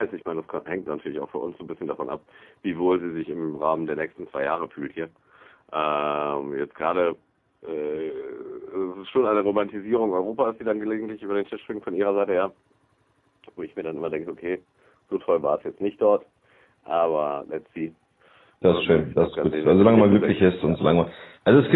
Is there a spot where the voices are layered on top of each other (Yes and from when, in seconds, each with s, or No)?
Yes, from 18.7 s